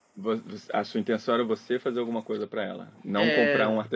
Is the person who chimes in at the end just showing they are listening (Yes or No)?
Yes